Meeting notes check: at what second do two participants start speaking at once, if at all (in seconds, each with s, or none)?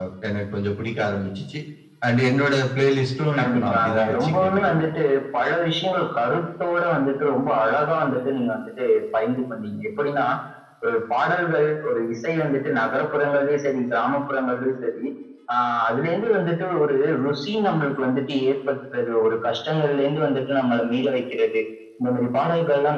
3.4 s